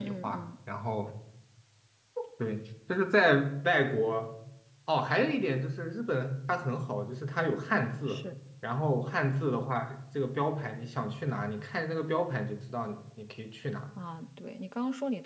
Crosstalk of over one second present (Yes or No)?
No